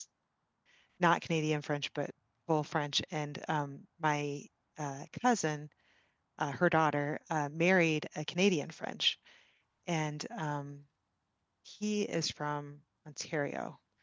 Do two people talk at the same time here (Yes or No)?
No